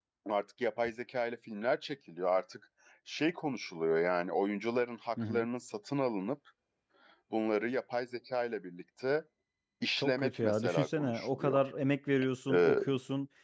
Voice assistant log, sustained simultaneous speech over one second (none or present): present